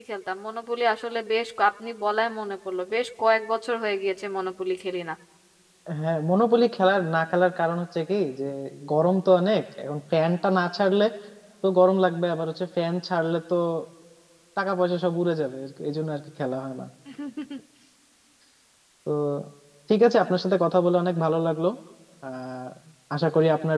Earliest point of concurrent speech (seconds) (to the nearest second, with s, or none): none